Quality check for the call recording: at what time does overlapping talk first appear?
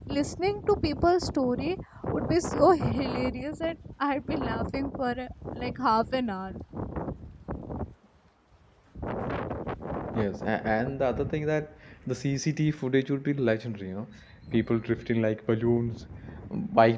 none

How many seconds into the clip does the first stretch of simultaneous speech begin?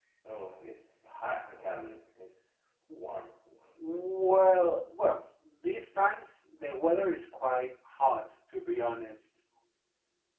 none

